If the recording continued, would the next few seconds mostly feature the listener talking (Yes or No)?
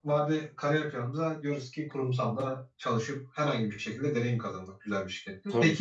No